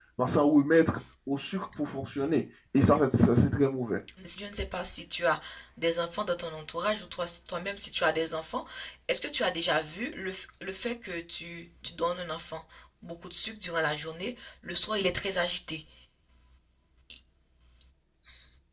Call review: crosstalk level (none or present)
none